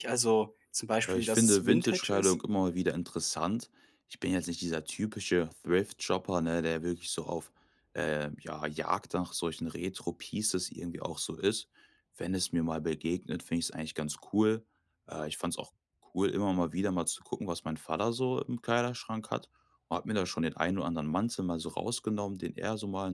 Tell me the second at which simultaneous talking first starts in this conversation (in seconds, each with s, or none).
1.1 s